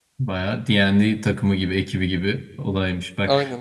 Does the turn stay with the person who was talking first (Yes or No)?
Yes